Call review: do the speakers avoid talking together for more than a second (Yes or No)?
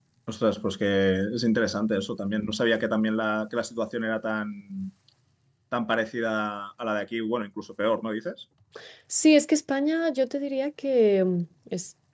Yes